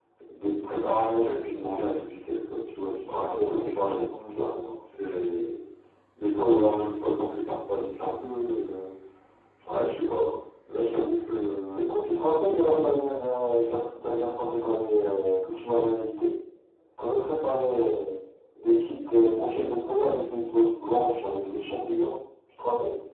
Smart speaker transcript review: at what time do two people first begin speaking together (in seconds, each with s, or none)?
3.1 s